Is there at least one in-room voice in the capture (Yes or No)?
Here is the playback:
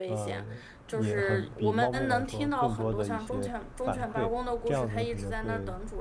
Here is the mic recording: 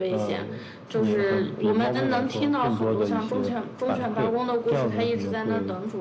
No